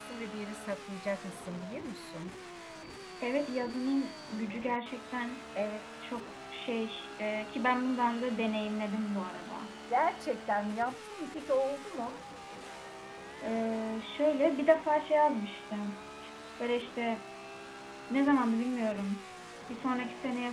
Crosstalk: none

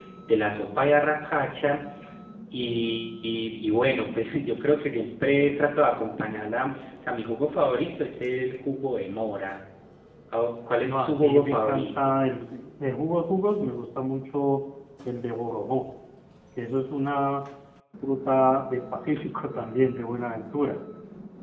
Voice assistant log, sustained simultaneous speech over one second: present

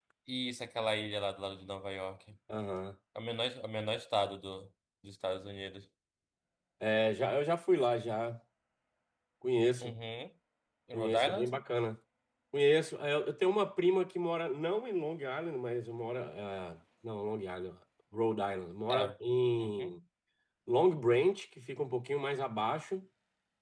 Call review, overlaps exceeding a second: none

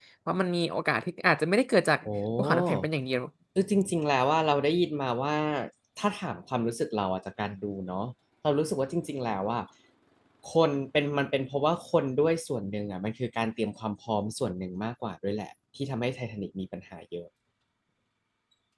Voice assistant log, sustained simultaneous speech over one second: none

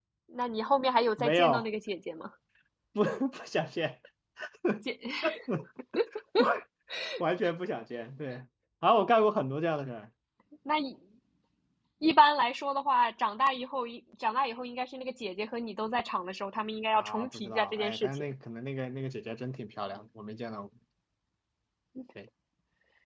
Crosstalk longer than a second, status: present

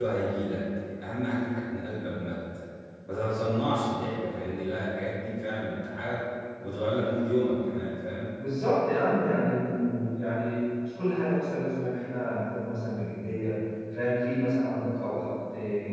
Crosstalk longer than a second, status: none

